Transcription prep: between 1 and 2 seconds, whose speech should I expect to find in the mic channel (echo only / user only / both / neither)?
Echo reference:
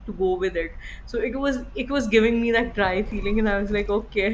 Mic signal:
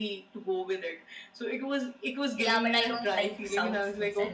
echo only